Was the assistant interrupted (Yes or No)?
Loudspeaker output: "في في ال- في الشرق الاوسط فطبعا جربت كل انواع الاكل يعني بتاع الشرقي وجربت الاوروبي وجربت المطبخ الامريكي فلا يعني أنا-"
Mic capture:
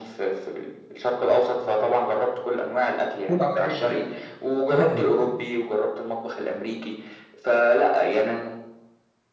Yes